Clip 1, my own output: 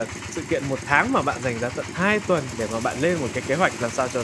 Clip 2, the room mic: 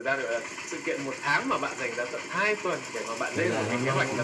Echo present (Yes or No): Yes